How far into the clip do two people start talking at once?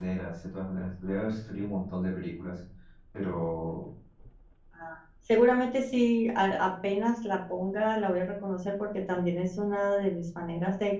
none

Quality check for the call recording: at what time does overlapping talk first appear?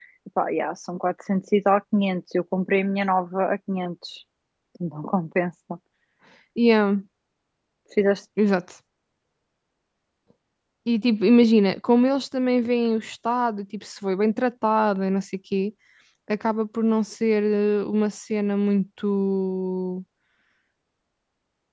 none

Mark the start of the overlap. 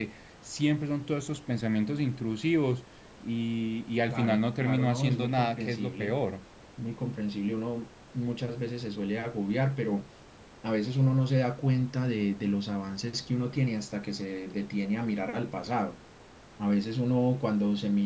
4 s

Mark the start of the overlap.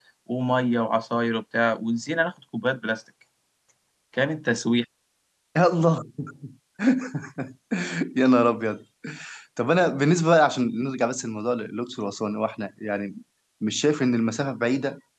none

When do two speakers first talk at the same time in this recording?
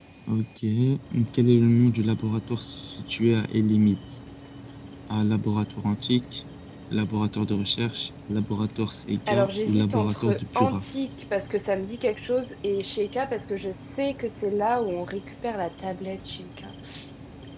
9 s

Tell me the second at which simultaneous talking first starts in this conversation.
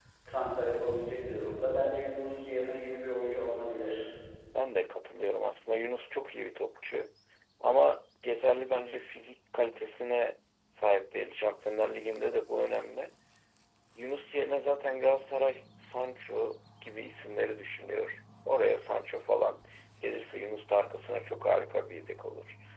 none

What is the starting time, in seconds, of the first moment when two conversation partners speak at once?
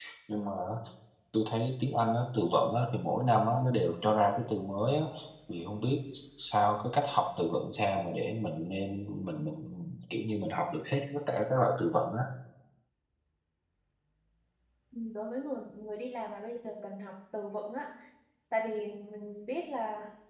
none

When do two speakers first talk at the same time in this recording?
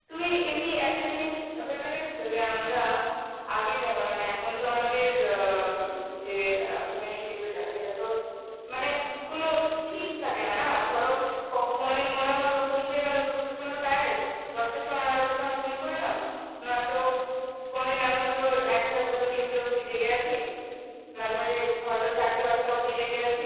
none

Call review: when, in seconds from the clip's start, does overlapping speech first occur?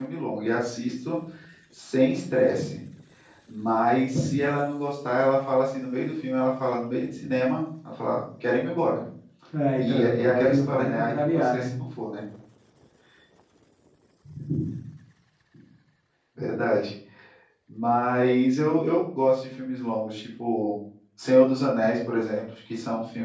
10 s

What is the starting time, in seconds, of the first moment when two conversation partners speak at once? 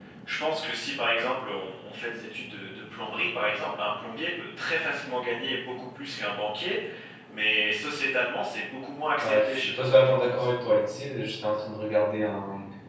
9 s

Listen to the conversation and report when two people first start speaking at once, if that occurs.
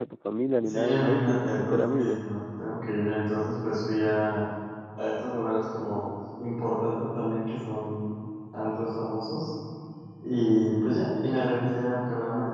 1 s

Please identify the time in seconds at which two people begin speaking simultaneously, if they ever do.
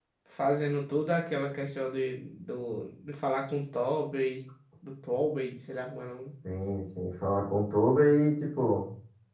none

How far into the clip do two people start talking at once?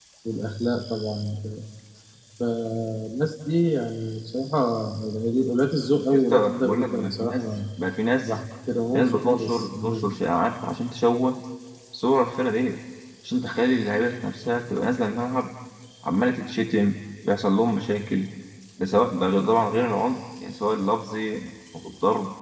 6 s

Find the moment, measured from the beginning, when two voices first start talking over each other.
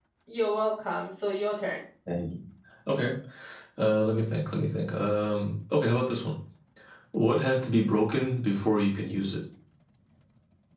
none

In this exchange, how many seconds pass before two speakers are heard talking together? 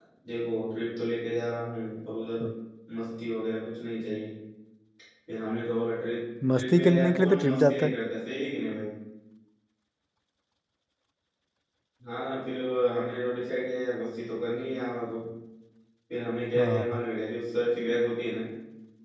7 s

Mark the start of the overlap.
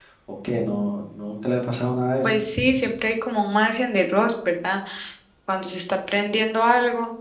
none

